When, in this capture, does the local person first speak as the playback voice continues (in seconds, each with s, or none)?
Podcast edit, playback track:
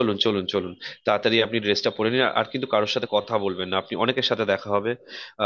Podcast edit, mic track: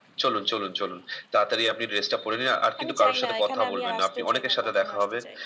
2.8 s